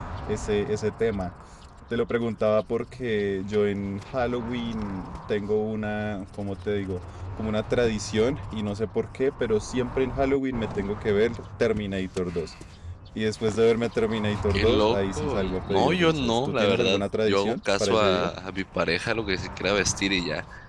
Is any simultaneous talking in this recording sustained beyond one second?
Yes, from 14.5 s

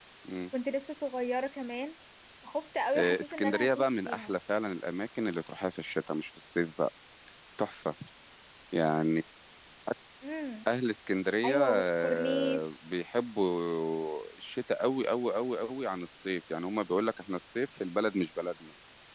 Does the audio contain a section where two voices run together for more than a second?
Yes, from 3.0 s

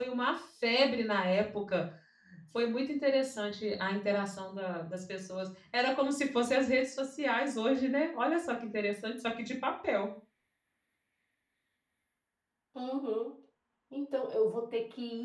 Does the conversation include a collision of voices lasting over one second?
No

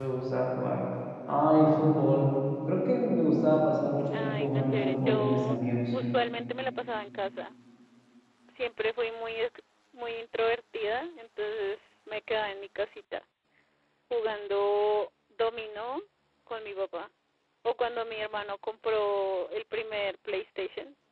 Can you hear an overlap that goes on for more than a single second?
Yes, from 4.1 s

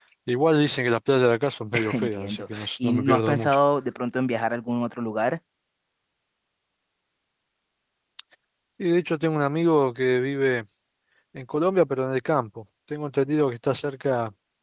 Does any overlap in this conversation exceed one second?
Yes, from 1.9 s

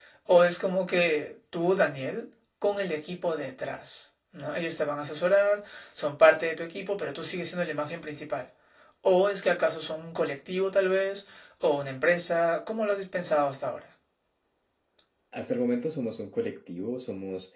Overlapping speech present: No

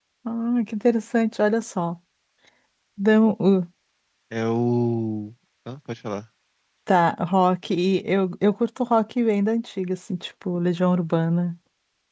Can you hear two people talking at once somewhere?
No

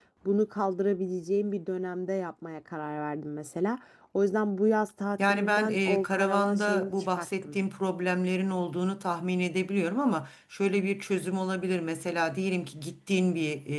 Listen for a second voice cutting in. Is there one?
Yes, from 5.2 s

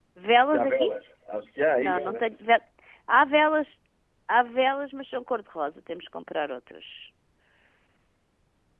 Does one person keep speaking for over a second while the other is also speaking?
No

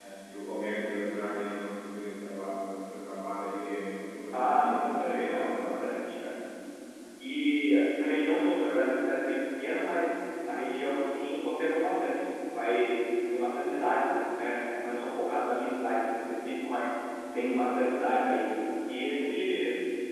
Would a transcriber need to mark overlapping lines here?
Yes, from 4.3 s

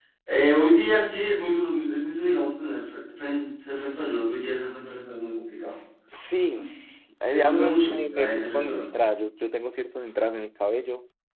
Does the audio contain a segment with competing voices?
Yes, from 7.3 s

